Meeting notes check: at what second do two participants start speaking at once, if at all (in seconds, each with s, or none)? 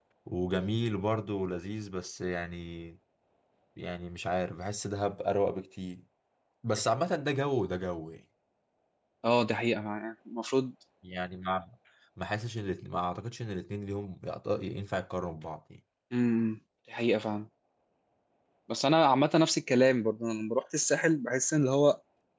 none